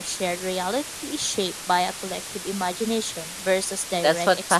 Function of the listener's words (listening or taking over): taking over